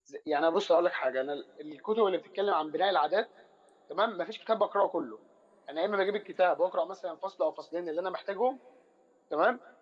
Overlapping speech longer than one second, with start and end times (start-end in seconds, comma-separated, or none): none